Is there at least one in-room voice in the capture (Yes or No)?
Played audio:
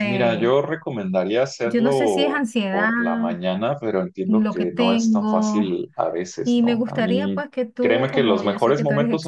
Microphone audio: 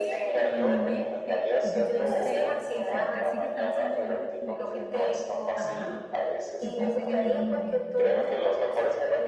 Yes